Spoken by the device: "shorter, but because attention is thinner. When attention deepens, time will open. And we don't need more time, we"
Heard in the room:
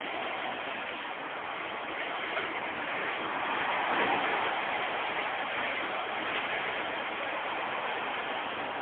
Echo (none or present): none